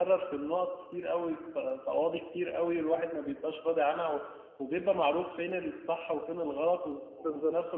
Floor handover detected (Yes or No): No